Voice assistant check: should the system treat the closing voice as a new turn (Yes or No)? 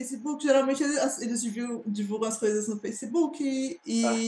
No